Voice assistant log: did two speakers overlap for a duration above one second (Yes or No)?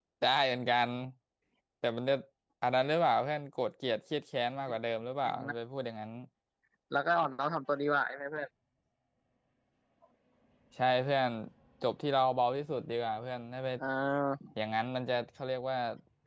No